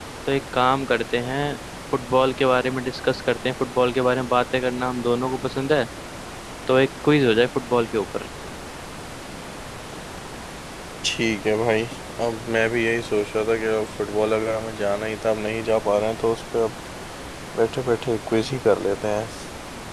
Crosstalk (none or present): none